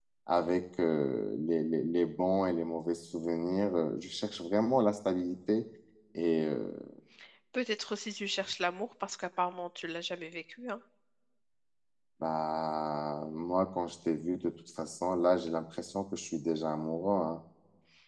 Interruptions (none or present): none